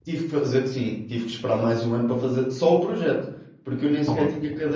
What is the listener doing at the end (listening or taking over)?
listening